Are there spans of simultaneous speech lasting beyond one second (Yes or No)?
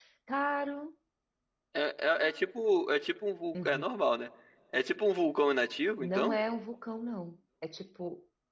No